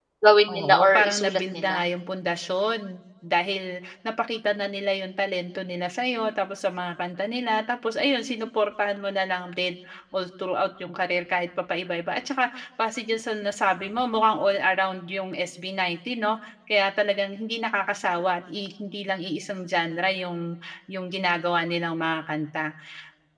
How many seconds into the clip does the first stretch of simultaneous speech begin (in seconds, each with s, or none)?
0.5 s